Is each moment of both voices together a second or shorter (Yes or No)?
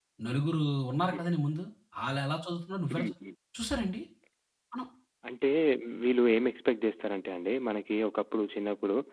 Yes